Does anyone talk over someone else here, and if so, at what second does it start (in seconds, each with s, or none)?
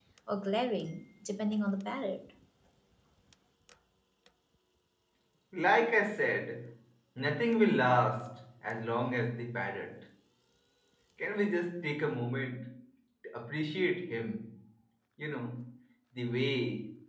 none